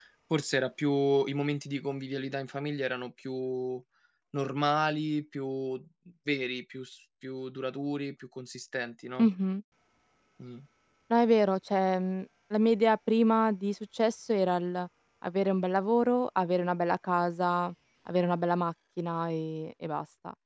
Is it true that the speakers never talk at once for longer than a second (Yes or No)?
Yes